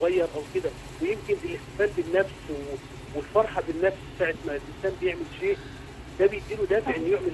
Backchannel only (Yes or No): Yes